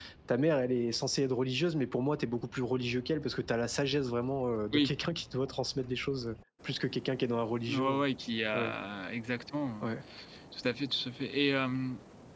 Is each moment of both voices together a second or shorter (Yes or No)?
Yes